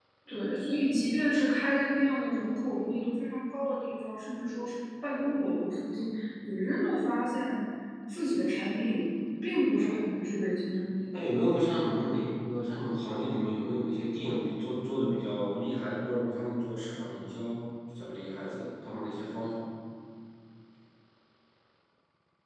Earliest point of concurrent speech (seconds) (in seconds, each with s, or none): none